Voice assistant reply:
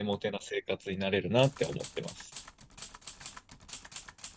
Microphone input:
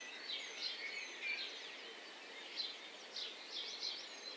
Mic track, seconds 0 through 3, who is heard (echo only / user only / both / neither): neither